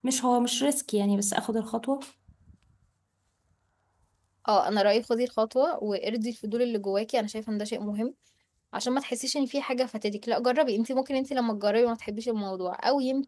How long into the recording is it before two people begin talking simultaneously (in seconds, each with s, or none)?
none